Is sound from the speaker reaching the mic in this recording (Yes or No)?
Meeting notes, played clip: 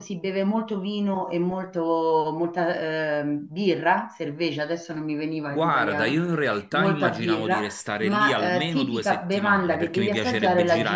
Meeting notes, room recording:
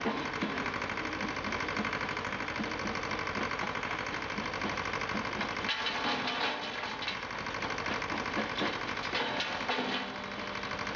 No